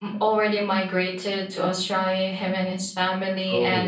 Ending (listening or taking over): listening